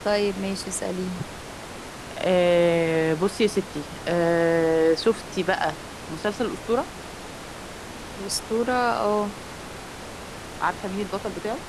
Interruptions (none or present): none